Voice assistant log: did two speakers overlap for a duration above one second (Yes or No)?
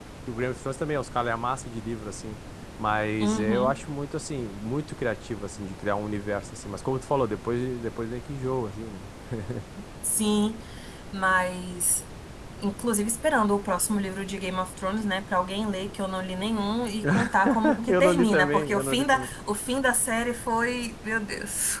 Yes